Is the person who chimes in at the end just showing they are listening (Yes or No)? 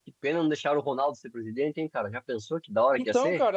No